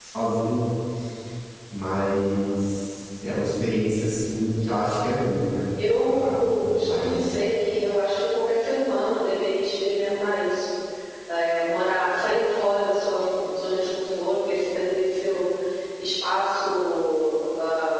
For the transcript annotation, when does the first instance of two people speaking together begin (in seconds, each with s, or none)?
6.0 s